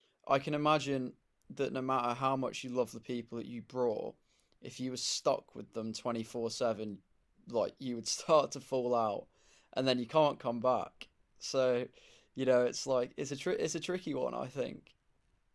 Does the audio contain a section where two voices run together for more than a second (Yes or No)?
No